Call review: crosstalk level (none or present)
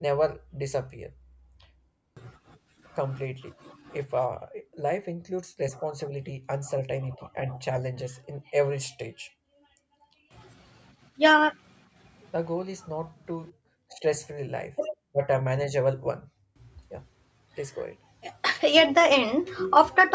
none